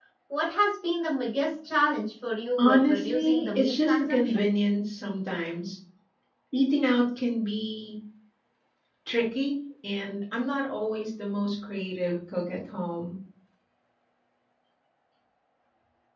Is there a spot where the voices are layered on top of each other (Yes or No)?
Yes